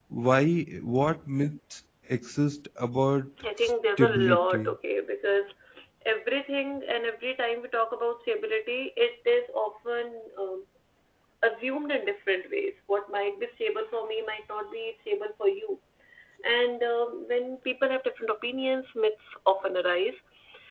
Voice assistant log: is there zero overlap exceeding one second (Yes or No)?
No